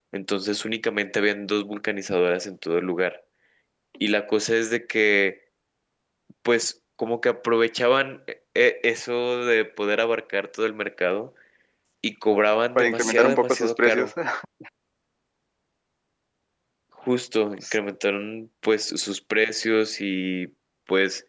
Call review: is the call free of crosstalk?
No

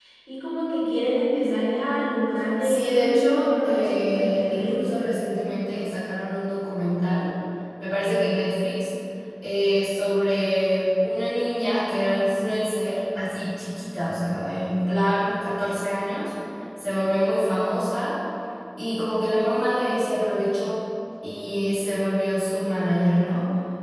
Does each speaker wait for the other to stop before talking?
No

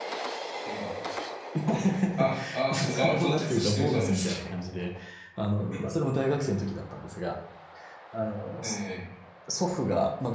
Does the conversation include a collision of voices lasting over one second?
Yes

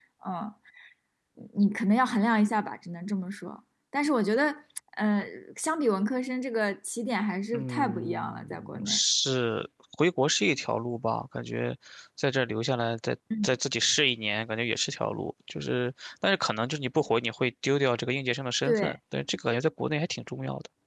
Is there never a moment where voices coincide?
No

